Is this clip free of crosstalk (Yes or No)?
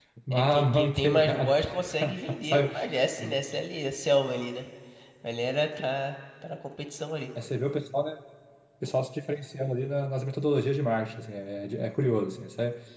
No